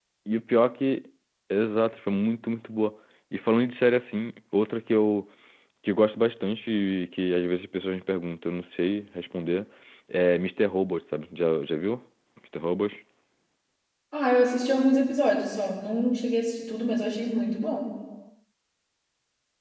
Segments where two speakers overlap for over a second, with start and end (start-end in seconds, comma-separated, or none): none